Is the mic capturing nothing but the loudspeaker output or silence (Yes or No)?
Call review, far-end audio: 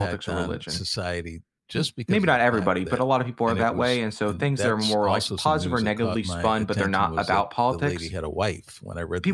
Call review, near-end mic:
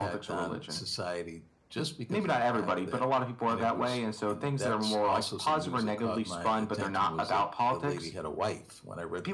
Yes